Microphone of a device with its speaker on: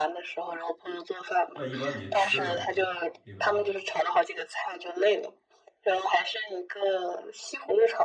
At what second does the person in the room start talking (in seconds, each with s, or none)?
1.5 s